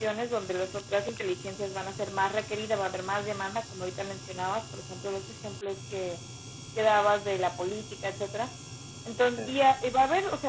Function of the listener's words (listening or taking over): listening